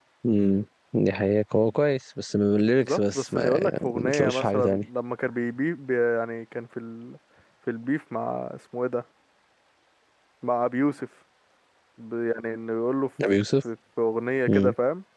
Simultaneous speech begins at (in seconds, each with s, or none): 2.8 s